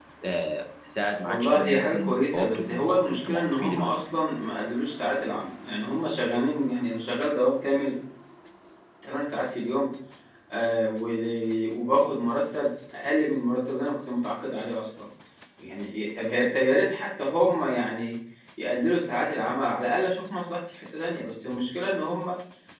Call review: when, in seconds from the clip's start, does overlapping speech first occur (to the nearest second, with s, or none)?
1 s